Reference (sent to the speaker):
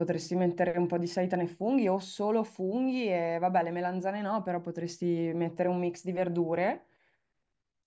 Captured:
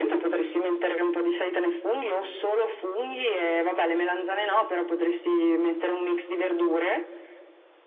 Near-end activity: none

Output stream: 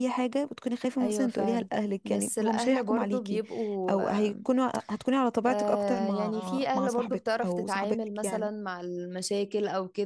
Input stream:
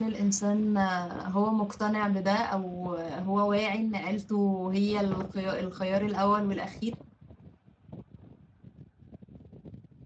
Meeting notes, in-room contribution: present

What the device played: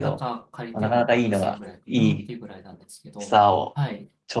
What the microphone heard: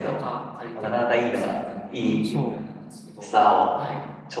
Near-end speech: present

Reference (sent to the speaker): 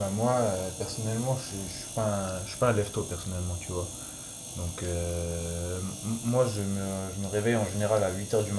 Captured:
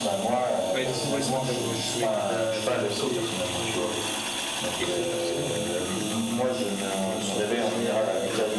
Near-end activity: present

